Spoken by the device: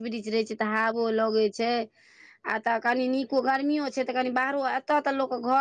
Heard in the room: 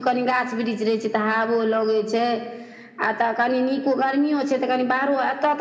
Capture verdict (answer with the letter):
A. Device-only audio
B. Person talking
A